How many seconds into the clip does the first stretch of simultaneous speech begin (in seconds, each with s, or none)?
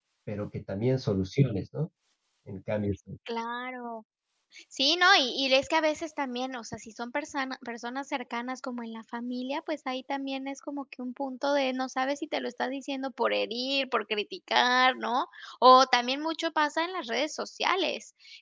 none